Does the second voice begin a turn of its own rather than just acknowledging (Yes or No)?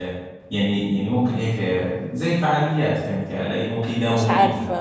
Yes